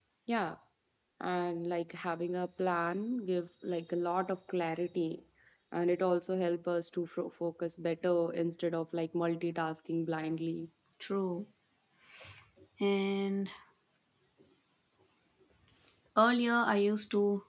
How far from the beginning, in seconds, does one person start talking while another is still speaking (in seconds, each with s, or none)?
none